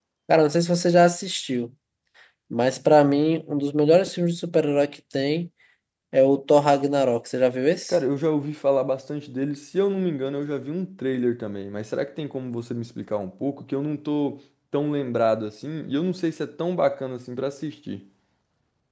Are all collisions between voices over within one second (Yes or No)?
Yes